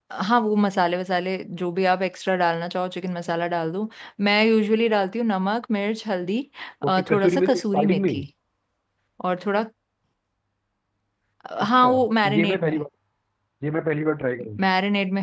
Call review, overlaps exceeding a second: present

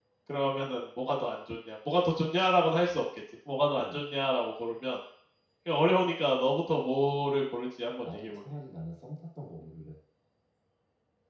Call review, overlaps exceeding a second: none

